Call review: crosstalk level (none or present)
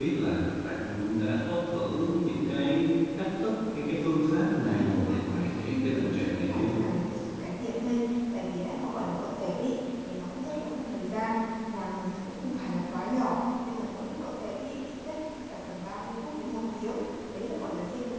present